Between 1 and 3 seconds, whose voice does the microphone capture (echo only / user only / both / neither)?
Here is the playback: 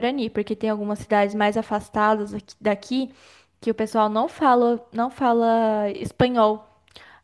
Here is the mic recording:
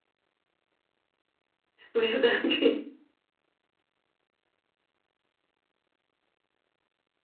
user only